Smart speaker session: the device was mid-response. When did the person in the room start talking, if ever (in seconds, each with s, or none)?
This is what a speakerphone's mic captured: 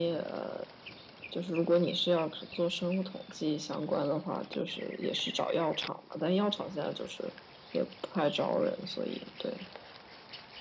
none